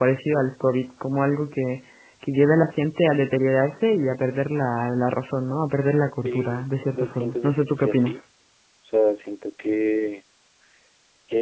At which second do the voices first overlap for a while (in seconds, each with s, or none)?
6.2 s